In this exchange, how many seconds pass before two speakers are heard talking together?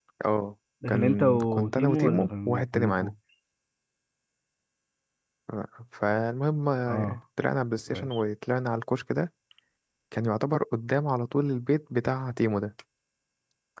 0.9 s

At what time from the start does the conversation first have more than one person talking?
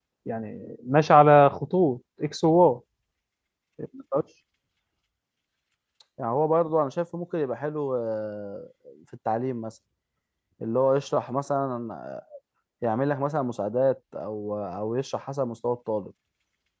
none

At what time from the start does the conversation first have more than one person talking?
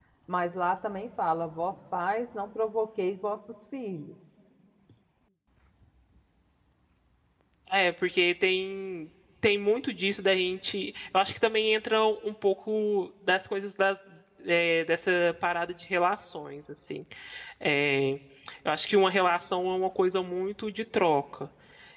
none

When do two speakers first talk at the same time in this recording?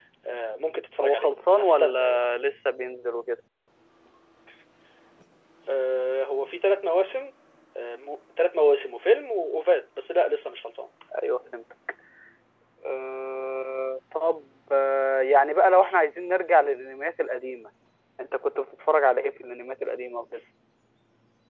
1.0 s

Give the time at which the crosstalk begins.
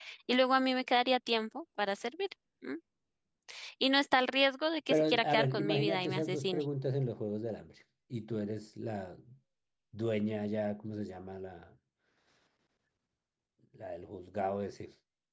4.9 s

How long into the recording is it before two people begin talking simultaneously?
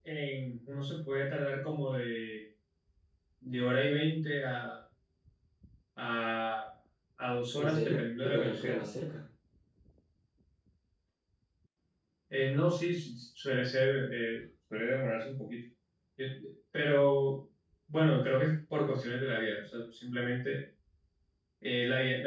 7.6 s

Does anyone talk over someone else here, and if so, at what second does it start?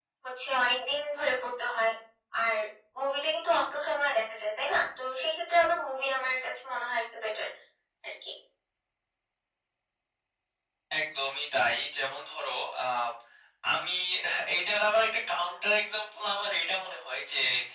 none

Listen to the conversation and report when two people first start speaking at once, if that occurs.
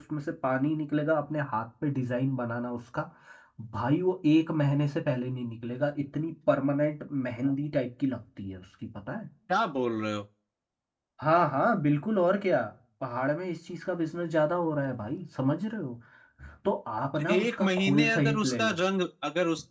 17.2 s

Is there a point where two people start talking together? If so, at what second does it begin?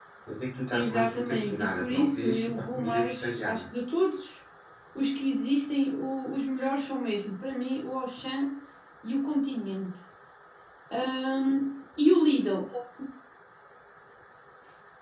0.7 s

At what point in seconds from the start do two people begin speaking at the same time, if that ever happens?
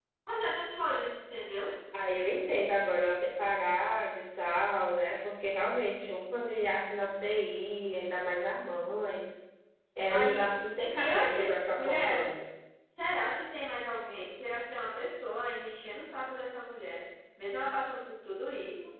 10.1 s

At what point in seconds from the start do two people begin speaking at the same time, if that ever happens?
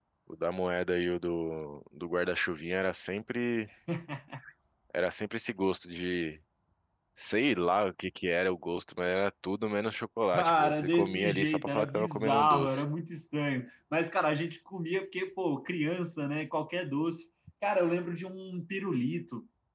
10.3 s

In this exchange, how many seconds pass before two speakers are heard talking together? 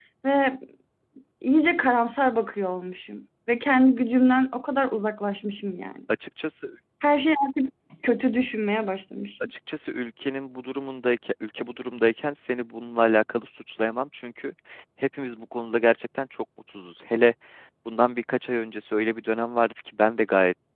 none

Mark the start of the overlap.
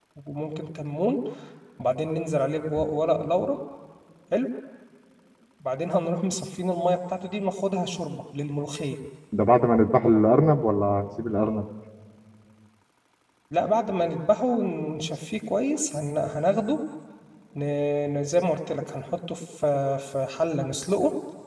none

